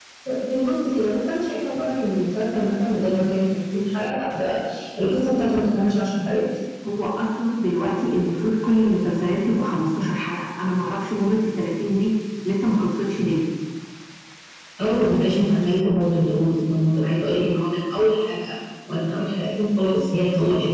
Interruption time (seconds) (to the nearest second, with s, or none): none